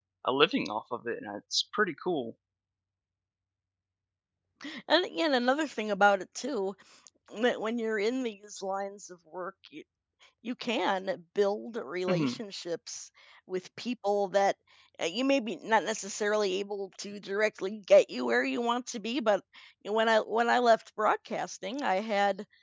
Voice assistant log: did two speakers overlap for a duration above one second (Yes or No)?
No